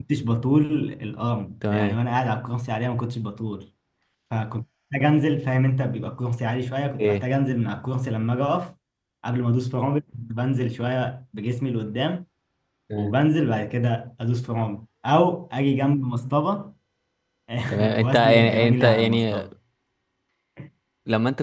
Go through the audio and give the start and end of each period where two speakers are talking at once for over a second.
18.0-19.5

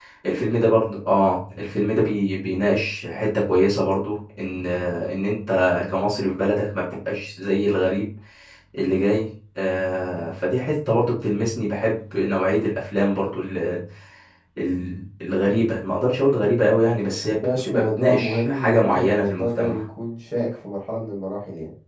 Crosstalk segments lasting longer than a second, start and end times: 17.4-19.8

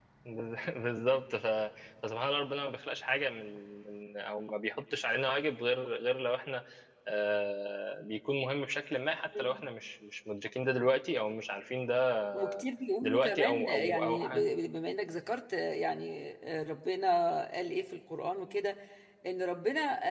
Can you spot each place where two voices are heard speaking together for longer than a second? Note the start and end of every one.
13.0-14.4

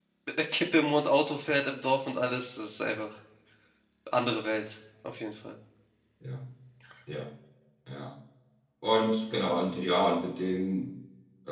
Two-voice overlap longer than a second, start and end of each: none

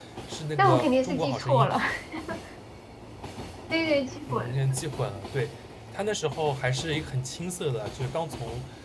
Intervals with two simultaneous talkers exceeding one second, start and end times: 0.6-1.8

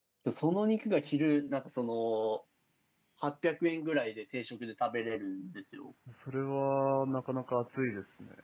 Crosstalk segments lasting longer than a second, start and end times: none

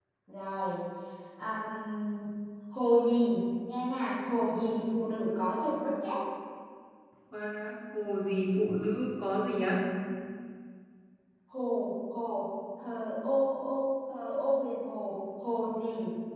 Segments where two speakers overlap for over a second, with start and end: none

